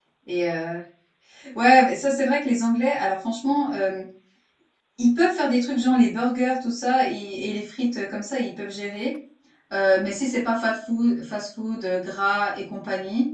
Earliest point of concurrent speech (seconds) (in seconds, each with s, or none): none